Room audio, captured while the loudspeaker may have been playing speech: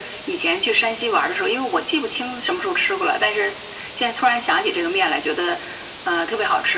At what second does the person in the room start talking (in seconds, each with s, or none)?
none